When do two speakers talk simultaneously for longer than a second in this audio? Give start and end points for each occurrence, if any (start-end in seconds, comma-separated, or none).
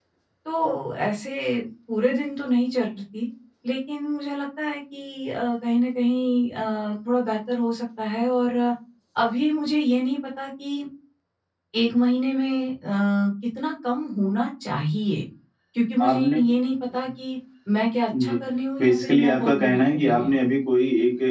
18.8-20.4